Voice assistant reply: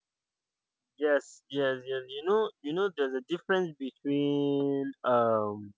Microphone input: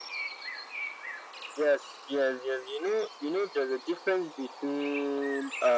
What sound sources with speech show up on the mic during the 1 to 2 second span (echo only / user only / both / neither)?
echo only